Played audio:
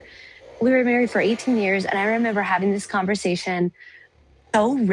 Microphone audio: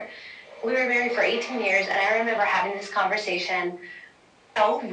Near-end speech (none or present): none